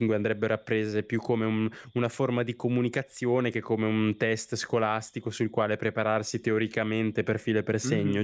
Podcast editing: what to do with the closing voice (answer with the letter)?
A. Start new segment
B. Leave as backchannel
A